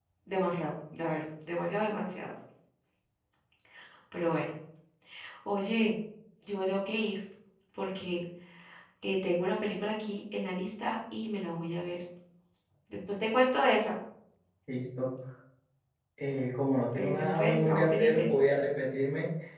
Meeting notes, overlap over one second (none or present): present